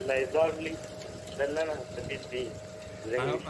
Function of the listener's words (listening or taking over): listening